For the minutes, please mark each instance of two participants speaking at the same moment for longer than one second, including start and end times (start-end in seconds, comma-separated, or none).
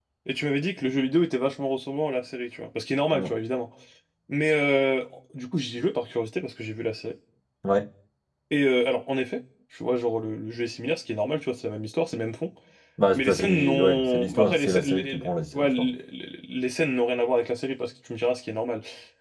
13.1-15.9